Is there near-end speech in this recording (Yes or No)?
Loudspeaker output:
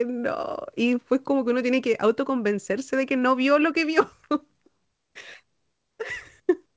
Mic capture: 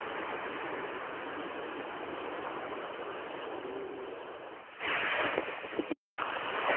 No